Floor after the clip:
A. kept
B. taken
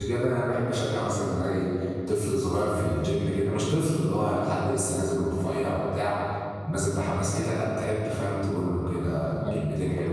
A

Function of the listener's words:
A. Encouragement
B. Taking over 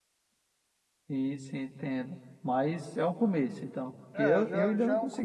B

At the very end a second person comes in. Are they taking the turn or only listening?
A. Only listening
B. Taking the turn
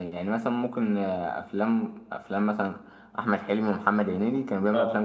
A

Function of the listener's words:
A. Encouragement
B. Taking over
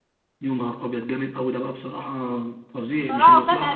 B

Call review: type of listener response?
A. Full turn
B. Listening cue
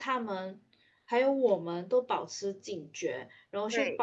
B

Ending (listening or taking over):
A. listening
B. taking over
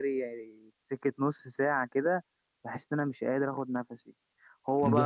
A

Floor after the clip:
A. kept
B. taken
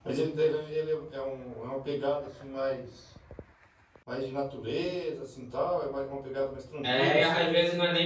B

